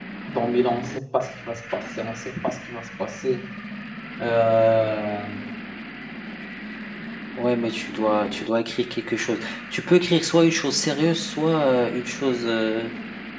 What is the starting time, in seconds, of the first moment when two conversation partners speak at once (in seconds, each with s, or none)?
none